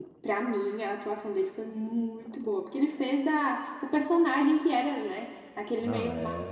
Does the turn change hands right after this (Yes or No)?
No